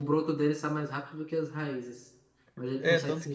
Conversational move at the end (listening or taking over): taking over